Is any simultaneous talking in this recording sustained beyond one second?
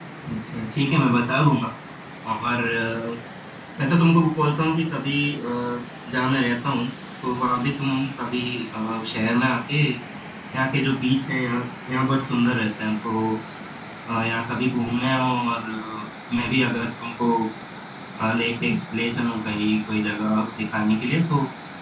No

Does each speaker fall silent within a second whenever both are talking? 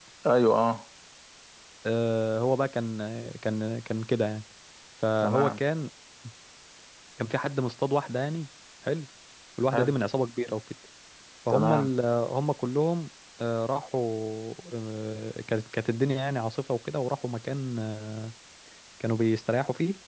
Yes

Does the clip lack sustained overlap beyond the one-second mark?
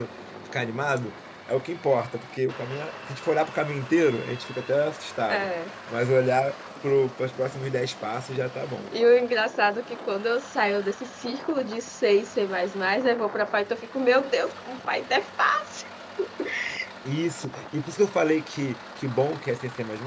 Yes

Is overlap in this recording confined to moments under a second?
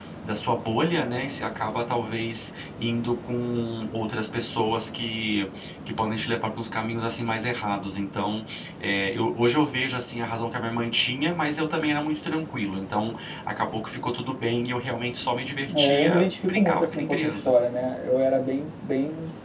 No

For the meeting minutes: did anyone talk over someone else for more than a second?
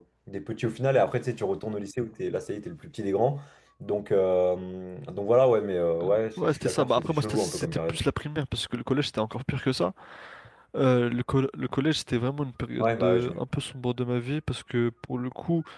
Yes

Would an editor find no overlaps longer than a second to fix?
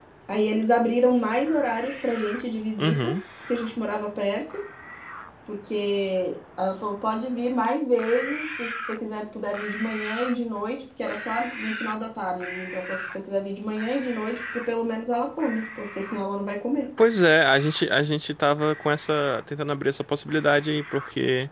Yes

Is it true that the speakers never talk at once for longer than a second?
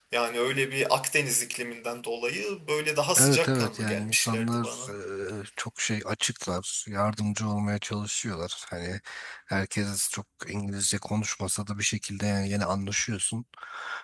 No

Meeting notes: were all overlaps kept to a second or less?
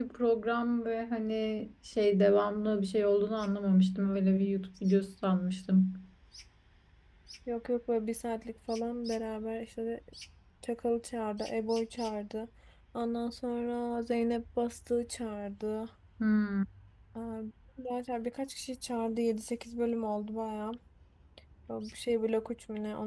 Yes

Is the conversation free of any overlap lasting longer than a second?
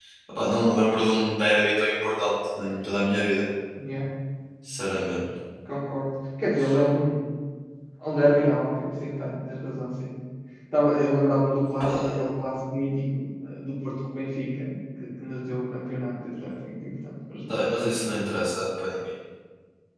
Yes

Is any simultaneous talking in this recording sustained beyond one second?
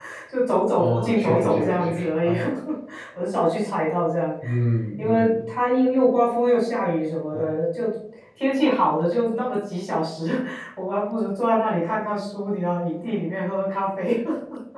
Yes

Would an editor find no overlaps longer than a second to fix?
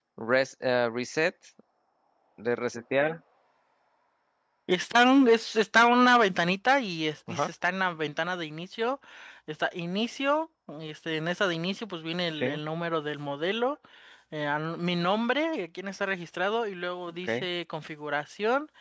Yes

